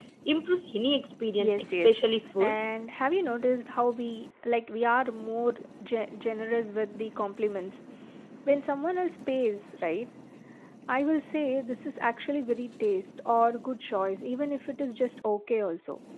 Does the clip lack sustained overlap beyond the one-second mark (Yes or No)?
No